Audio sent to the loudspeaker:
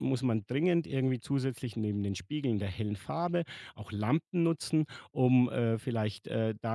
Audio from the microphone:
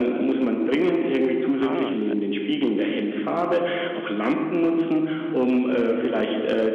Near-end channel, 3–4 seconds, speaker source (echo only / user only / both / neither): echo only